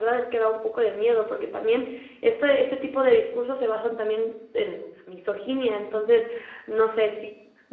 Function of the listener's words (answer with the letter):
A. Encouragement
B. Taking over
A